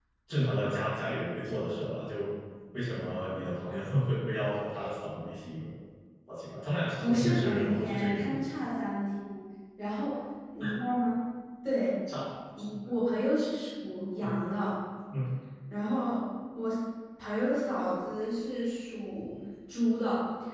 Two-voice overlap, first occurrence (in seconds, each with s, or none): 7.0 s